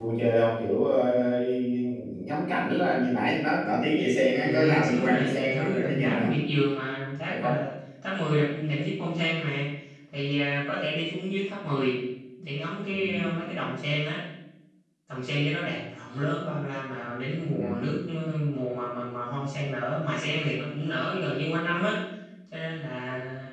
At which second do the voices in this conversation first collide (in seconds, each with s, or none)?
4.4 s